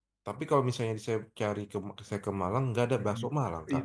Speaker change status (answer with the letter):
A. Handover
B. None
A